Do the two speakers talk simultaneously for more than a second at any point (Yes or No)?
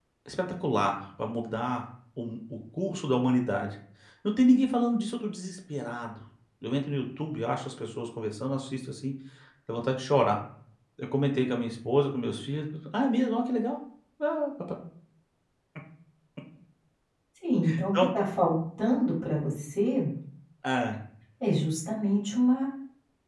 No